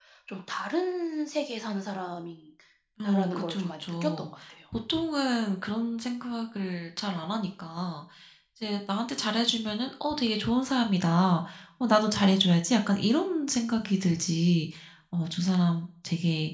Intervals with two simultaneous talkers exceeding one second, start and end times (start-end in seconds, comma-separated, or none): 3.0-4.3